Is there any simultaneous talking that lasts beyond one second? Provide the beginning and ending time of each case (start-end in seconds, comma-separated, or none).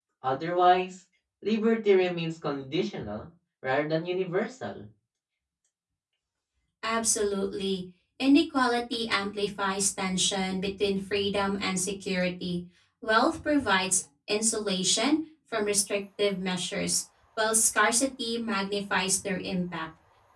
none